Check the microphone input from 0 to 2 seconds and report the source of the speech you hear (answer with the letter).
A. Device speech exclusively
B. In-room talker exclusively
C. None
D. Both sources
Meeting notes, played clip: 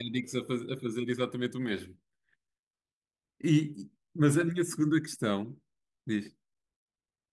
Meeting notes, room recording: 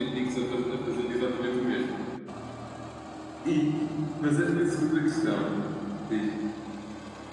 A